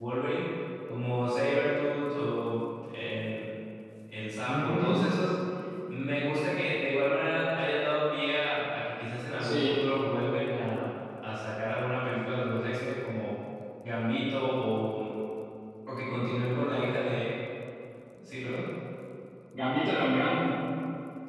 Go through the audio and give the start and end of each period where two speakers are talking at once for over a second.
none

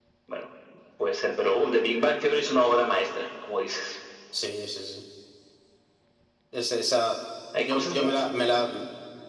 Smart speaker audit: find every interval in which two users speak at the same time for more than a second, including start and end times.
none

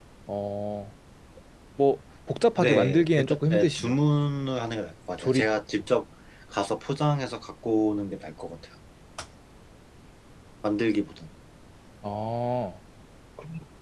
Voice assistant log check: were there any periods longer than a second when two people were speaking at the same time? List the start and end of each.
2.6-4.0

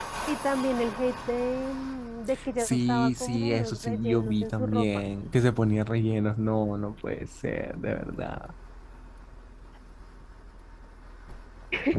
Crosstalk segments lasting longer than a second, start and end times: 2.6-5.0

